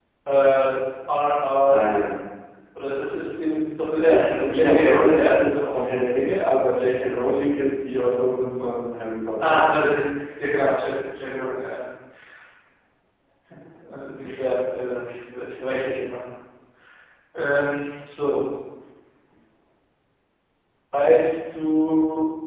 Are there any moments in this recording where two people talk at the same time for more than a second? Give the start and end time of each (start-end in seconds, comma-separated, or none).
4.0-5.8